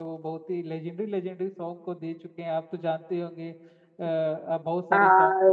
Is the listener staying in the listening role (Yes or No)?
No